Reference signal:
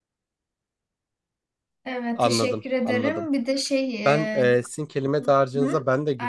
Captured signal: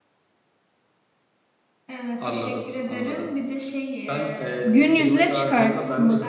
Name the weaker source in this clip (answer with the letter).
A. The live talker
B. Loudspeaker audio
B